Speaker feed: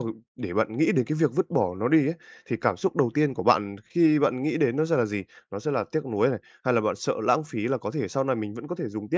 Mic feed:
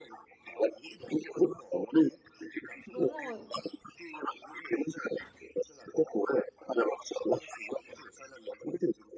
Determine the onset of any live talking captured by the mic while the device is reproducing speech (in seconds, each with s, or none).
2.9 s